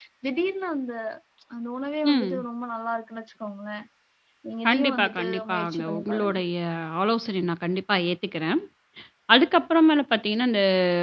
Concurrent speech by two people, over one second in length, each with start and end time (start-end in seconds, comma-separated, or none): 4.7-6.4